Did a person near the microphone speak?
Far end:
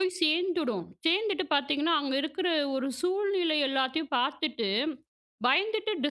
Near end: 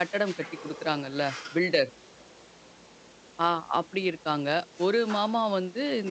Yes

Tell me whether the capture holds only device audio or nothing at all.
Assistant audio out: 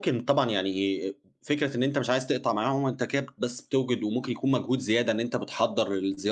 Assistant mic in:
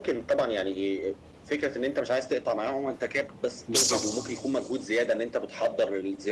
No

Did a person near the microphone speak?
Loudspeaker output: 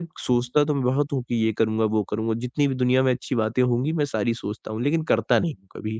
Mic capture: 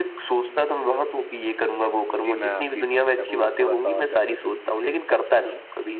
Yes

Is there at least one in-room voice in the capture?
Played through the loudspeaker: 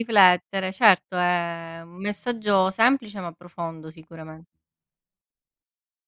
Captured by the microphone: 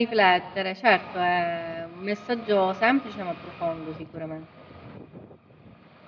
No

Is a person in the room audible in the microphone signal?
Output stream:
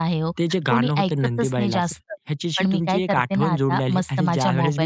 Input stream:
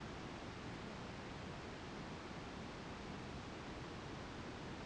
No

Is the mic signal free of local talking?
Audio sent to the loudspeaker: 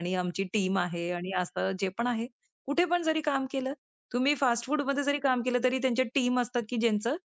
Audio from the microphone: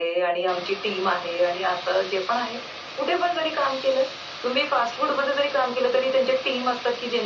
Yes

